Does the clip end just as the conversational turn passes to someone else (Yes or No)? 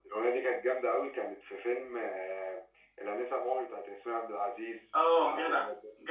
Yes